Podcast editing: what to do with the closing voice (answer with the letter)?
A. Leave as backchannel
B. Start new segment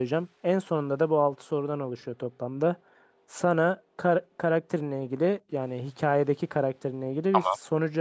A